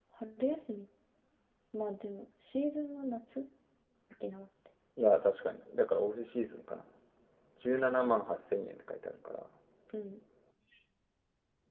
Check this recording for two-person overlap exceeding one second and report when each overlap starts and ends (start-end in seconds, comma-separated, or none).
none